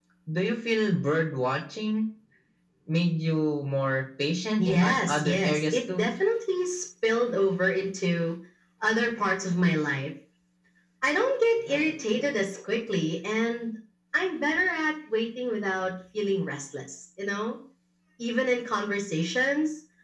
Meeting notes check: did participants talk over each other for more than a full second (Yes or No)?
Yes